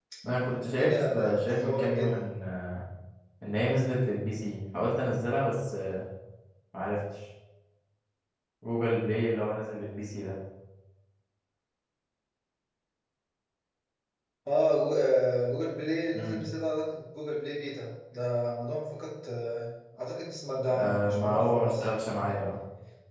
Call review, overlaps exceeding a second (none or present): present